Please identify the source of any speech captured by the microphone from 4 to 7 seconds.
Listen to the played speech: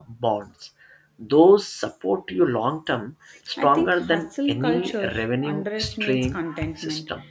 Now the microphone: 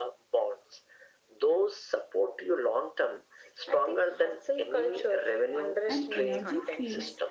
both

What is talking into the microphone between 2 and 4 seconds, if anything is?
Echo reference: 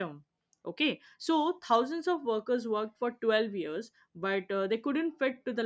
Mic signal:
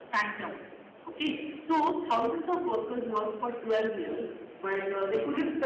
echo only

